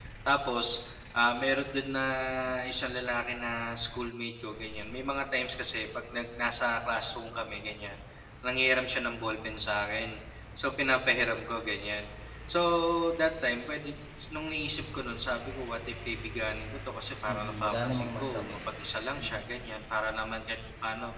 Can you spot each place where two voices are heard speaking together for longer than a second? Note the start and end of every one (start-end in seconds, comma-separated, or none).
17.3-18.6